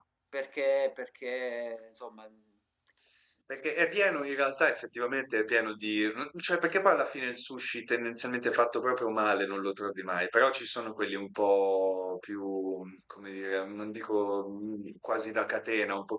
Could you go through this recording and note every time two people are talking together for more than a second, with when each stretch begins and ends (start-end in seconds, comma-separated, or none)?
none